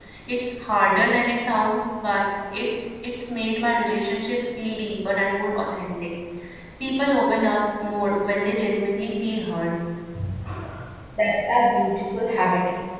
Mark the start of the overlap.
none

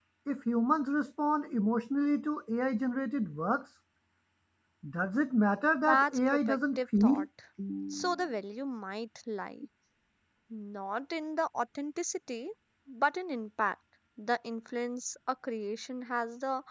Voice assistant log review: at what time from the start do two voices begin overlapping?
5.9 s

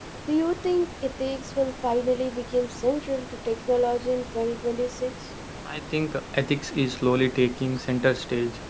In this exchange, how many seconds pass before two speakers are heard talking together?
none

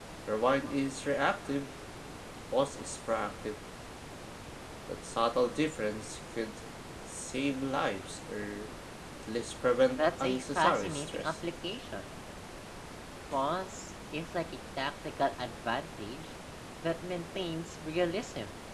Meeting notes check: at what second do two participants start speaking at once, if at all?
9.9 s

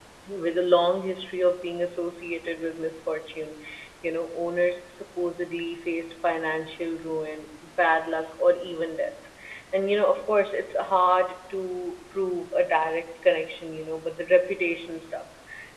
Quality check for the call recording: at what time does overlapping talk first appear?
none

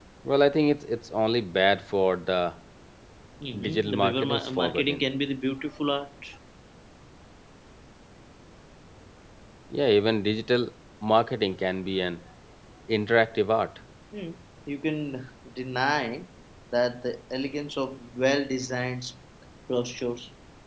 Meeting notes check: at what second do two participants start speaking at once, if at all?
3.7 s

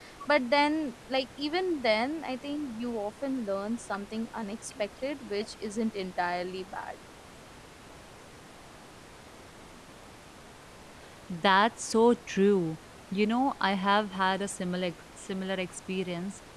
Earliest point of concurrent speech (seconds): none

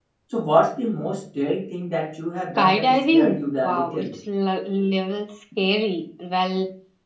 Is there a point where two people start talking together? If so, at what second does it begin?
2.6 s

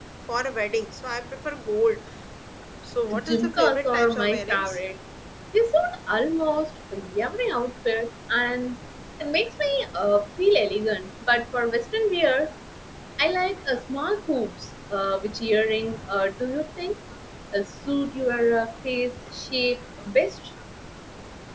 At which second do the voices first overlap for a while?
3.1 s

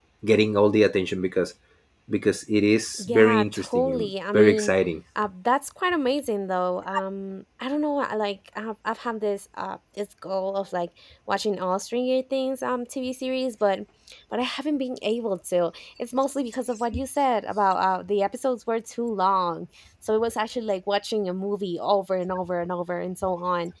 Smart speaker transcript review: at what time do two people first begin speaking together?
3.0 s

